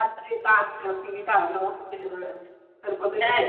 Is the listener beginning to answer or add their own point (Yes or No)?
Yes